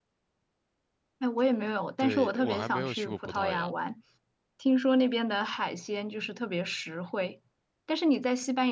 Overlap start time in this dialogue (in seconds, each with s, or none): 2.0 s